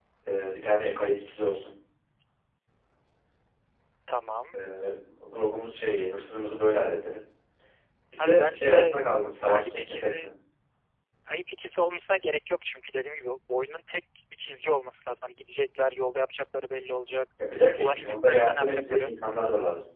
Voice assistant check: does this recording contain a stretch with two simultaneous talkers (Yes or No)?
Yes